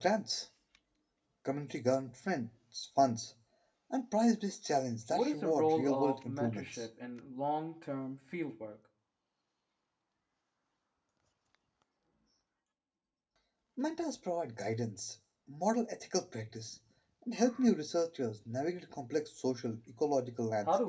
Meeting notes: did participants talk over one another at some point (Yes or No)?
Yes